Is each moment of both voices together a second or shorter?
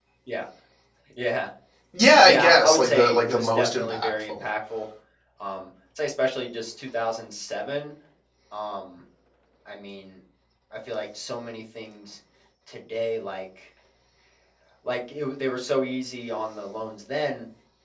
No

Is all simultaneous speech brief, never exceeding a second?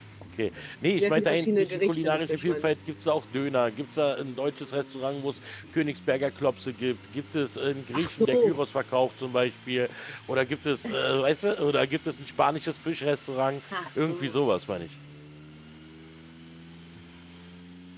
No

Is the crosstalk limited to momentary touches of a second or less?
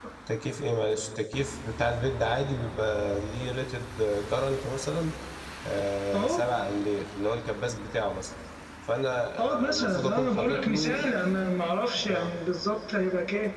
No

